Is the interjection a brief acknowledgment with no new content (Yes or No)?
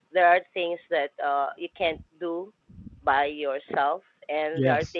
Yes